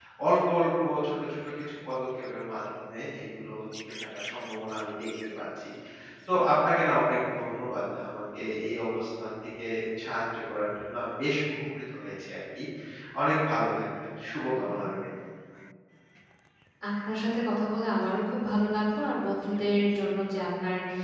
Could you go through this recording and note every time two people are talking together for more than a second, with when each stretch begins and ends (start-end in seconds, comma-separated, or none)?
none